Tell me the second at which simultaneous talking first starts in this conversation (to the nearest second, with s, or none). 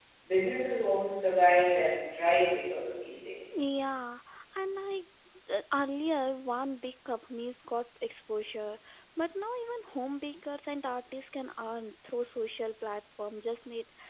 none